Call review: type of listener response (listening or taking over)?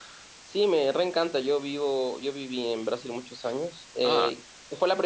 listening